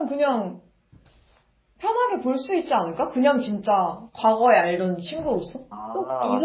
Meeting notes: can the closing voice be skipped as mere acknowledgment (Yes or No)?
No